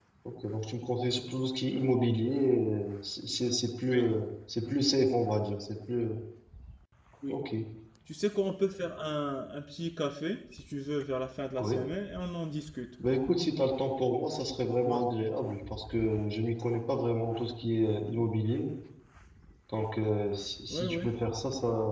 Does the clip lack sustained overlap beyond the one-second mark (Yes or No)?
Yes